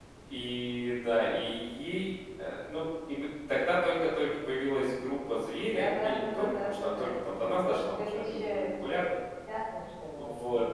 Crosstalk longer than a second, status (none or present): present